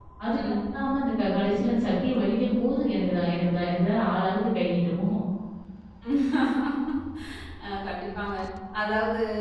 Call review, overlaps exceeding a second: none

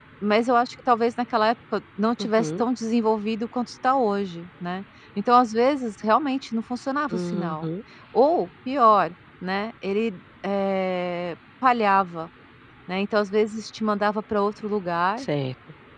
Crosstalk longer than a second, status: none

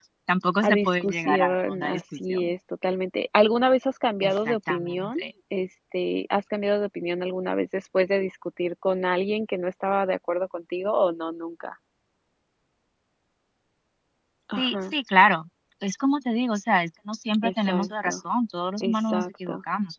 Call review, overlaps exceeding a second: present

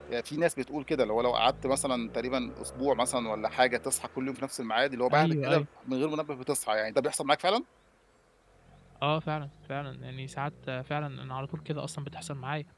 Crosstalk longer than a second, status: none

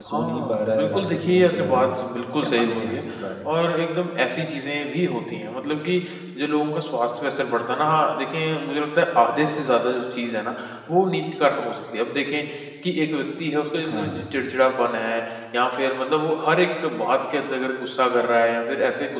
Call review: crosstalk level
present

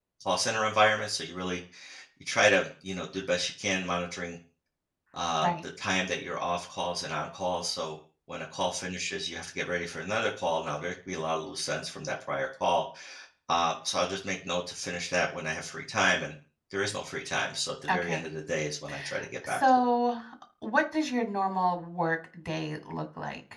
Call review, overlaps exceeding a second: none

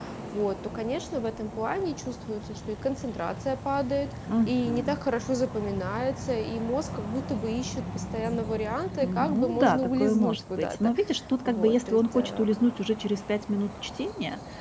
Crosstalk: present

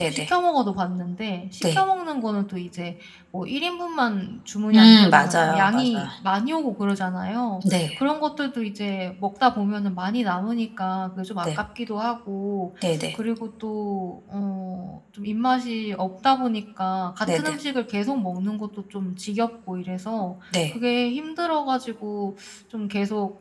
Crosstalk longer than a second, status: present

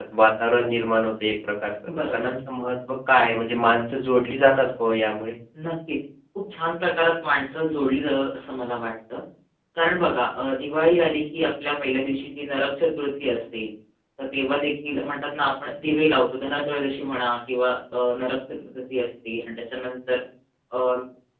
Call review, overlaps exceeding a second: none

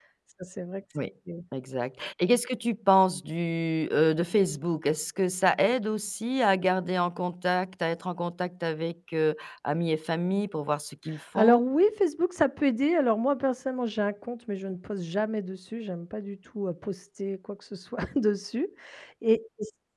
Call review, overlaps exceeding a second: none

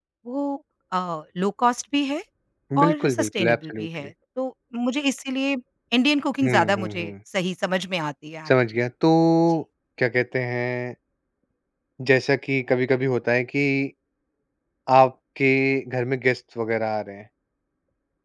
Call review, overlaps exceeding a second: present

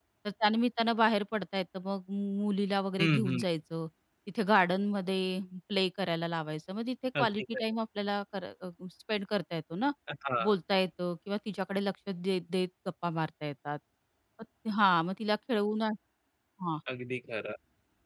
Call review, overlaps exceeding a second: none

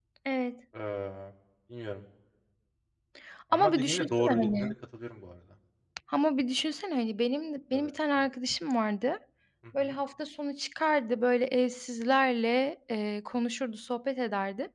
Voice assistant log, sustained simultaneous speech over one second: present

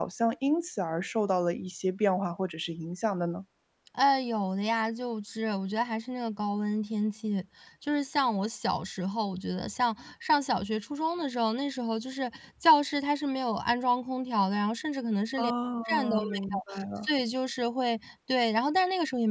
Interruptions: present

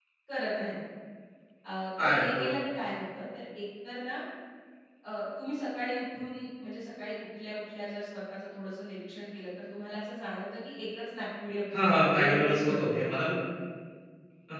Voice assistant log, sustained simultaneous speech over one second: present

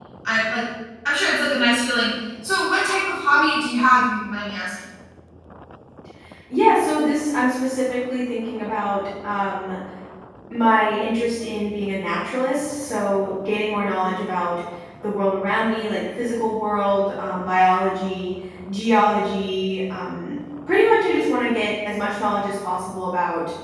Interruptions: none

